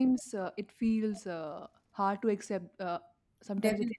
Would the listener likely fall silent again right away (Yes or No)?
No